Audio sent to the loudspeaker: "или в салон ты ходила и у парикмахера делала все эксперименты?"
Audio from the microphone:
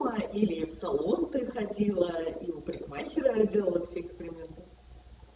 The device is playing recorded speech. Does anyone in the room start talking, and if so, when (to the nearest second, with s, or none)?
none